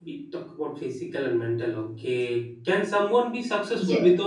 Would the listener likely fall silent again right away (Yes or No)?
Yes